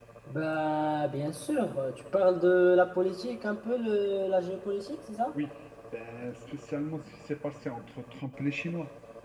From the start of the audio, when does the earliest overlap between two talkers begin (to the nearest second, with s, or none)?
none